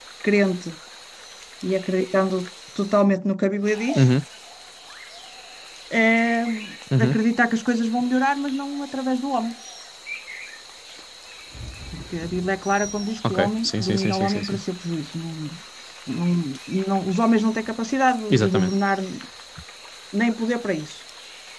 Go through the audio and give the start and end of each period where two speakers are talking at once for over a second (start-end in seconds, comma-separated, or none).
13.3-14.6